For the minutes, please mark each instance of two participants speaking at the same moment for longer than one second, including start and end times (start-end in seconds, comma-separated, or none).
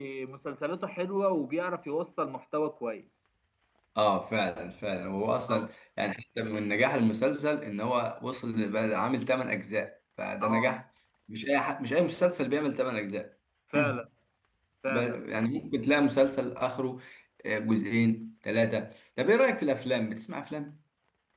none